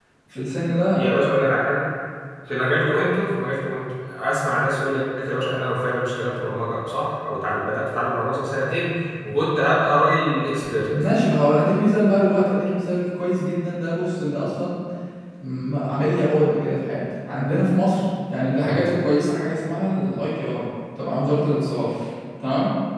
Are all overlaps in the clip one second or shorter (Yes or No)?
Yes